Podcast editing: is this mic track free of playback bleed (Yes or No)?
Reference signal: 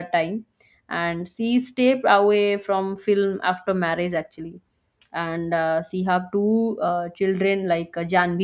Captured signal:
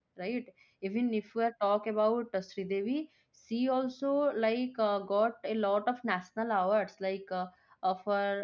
Yes